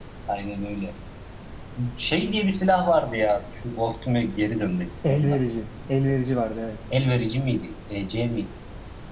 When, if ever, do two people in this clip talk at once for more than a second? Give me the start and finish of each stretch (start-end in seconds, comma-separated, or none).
none